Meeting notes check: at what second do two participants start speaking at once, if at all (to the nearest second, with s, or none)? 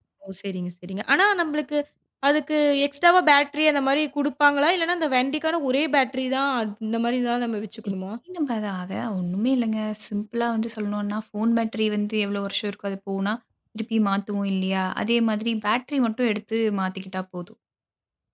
none